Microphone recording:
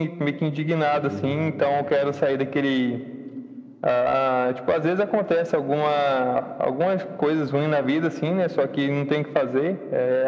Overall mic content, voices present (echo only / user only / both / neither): both